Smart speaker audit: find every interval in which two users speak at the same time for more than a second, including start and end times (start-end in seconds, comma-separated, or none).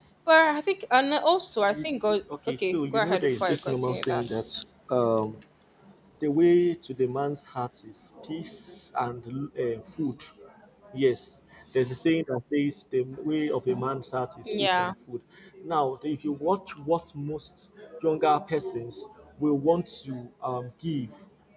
2.6-4.3